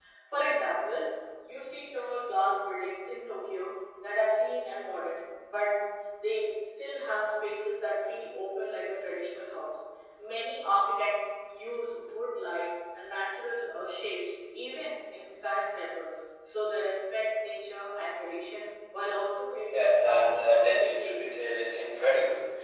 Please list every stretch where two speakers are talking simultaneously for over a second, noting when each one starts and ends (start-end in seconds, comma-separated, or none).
19.7-21.4